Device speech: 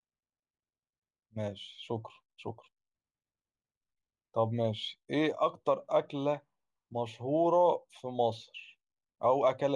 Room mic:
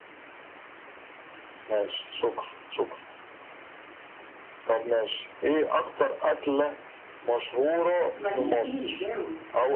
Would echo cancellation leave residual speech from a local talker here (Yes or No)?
Yes